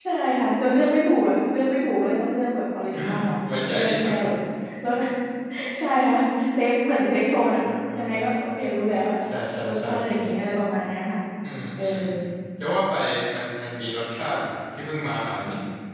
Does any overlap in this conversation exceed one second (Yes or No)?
No